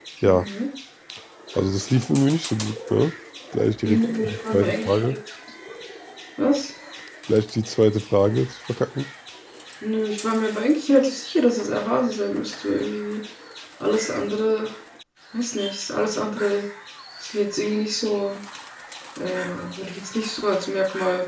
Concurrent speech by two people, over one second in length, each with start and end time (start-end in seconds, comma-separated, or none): 3.8-5.2